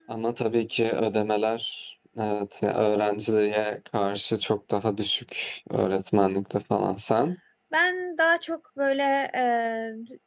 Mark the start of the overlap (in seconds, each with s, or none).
none